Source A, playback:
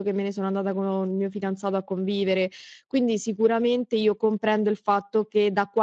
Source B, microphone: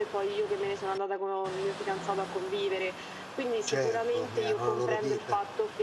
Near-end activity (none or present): present